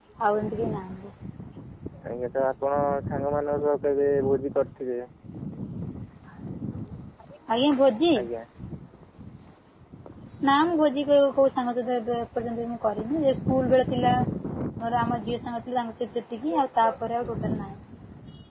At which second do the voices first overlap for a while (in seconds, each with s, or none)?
none